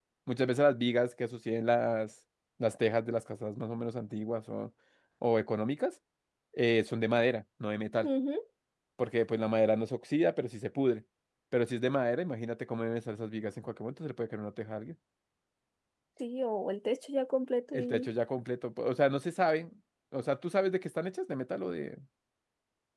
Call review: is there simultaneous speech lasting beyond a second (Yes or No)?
No